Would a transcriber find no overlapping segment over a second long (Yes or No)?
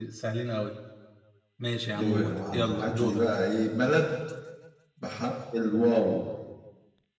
No